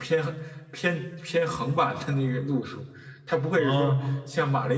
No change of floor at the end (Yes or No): Yes